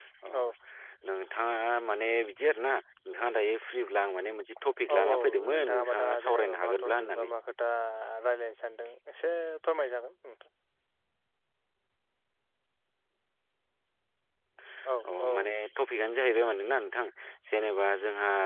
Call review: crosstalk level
present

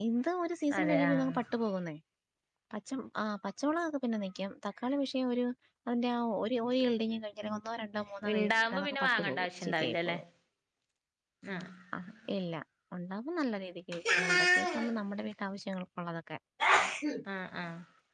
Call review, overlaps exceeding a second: present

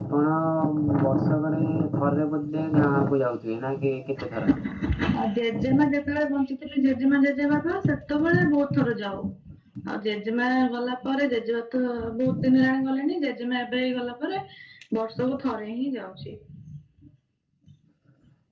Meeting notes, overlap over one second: none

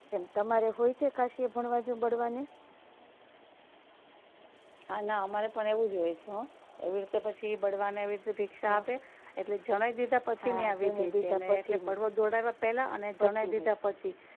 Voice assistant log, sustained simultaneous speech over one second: present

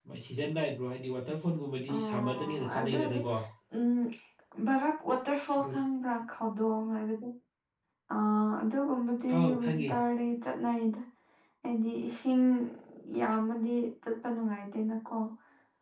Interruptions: present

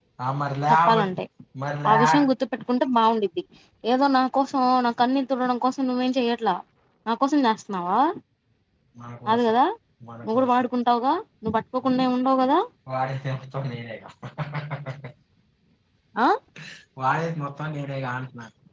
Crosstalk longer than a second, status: none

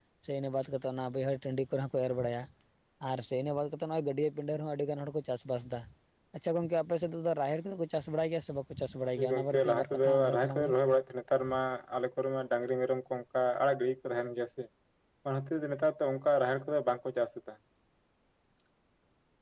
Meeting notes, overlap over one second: present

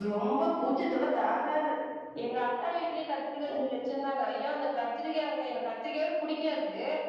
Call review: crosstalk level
none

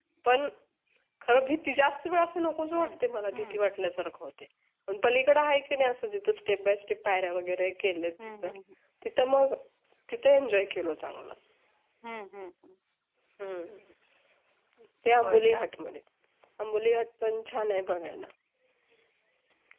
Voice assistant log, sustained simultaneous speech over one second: none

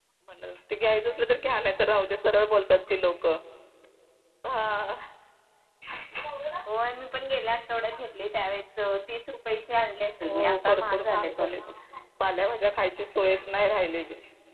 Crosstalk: present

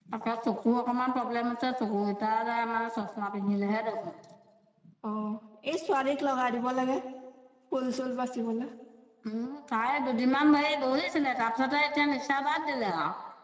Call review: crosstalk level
none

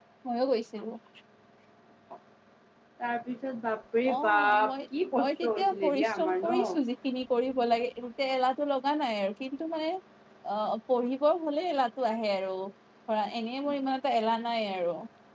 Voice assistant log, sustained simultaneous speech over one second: present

